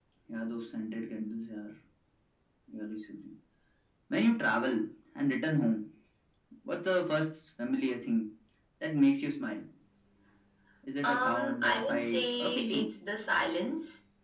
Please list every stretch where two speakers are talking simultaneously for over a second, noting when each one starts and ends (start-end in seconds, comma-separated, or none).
11.0-12.9